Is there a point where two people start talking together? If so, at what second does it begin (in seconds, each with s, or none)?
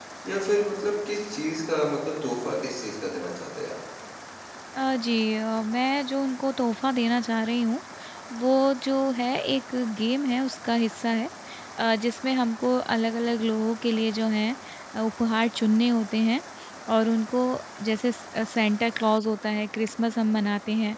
none